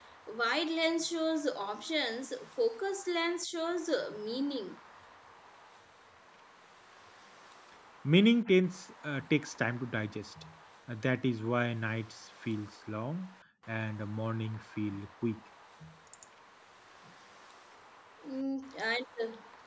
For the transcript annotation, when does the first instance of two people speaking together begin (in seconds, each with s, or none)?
none